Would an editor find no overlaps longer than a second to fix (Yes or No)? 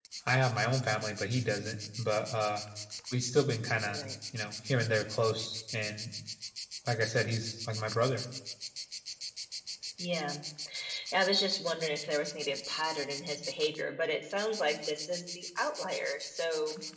Yes